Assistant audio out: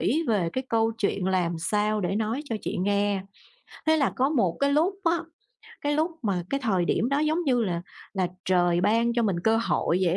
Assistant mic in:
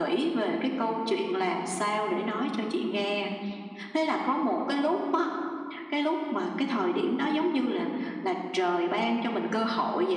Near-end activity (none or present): none